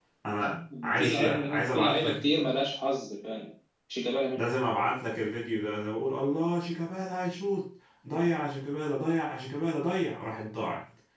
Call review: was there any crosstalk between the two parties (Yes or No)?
Yes